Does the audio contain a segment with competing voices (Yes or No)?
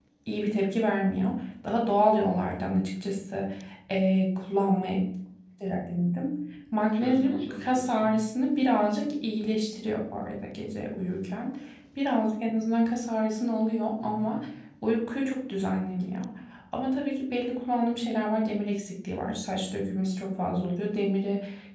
Yes